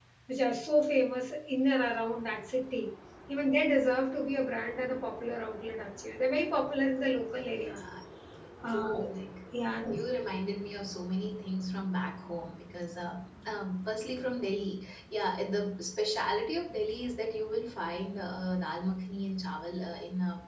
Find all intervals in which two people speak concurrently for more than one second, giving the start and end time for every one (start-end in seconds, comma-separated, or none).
none